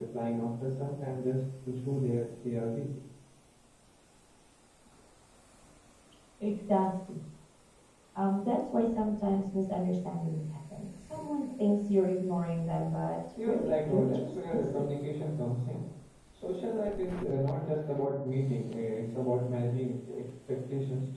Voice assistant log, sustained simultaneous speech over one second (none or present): present